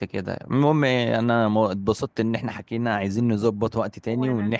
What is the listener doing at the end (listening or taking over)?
listening